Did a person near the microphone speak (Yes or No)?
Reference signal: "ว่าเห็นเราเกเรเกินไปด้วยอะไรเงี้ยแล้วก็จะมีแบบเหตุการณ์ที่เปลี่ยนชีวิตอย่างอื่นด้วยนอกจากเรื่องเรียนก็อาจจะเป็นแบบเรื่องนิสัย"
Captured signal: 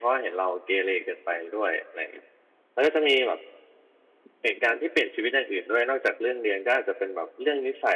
No